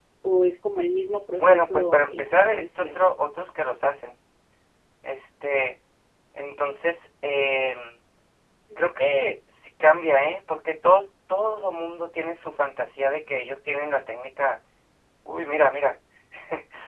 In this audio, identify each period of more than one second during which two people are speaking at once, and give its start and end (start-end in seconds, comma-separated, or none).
1.4-3.1